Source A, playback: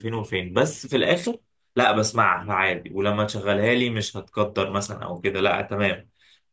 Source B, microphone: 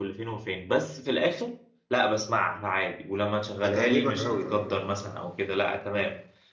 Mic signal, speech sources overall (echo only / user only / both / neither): both